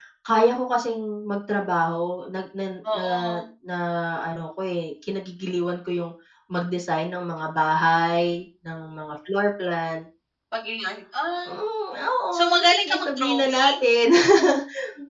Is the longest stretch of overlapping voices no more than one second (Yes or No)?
No